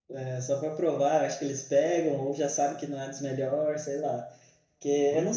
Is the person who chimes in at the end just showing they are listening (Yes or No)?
Yes